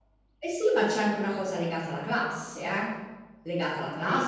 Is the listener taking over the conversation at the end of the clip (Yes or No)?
Yes